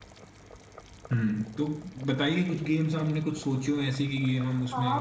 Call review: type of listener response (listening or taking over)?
taking over